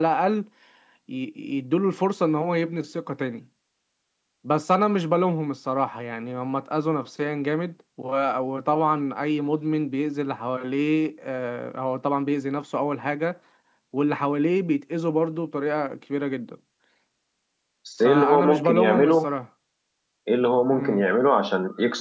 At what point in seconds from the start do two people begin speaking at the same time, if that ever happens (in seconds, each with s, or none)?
18.0 s